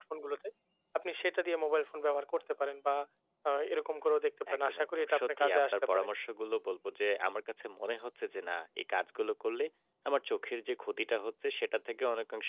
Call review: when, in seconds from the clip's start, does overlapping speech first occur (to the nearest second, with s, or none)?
4 s